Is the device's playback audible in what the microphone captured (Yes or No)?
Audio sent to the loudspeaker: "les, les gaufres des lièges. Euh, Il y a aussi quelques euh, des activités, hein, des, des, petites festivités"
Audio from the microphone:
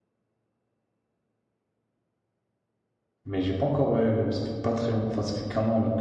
No